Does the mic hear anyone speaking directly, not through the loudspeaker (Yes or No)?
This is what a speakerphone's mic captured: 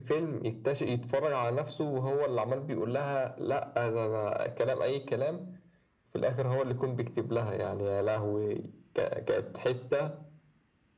No